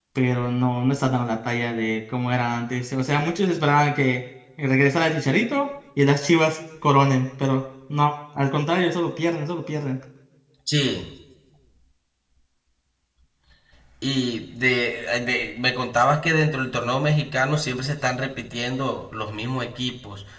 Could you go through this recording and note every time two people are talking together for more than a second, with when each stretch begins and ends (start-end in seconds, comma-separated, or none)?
none